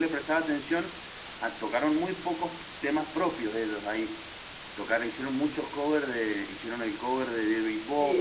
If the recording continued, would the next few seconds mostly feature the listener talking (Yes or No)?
Yes